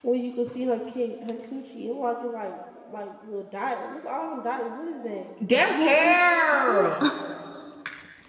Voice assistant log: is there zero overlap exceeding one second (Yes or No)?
Yes